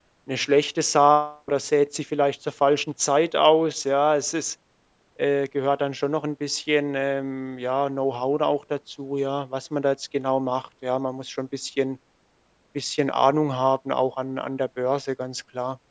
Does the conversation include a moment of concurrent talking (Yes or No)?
No